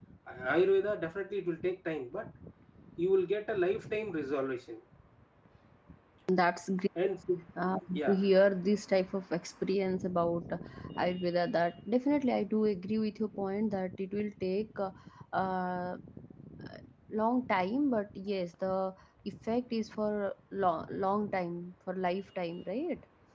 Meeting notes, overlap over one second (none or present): none